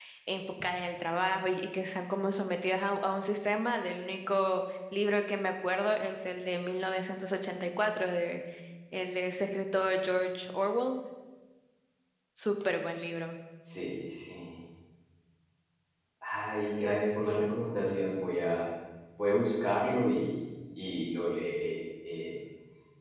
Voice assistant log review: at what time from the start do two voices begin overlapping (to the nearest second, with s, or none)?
none